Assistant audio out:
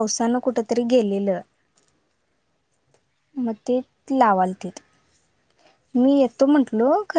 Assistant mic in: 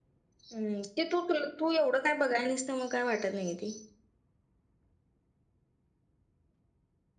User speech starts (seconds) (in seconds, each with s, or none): 0.5 s